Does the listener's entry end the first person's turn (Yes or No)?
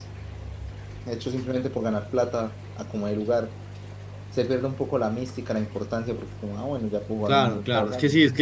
Yes